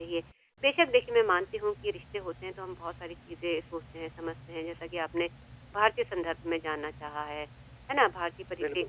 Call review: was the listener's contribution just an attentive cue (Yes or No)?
Yes